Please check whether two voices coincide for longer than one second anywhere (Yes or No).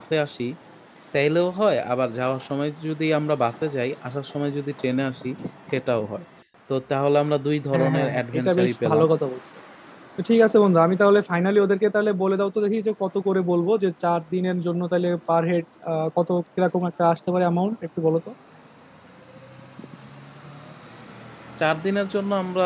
Yes